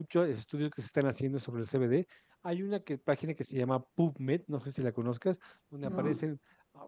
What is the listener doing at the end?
listening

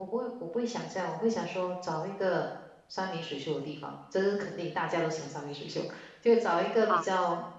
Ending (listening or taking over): listening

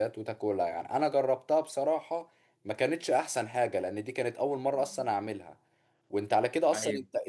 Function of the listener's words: listening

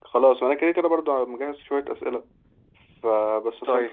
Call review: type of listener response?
listening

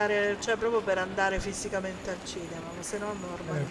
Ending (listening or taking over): taking over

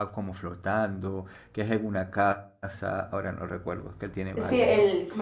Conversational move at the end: taking over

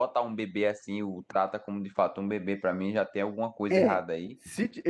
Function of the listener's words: taking over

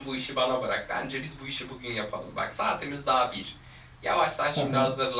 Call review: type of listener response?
listening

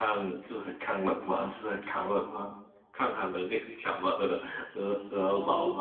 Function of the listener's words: taking over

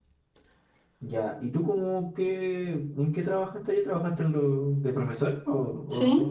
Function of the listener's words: taking over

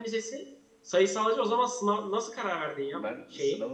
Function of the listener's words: taking over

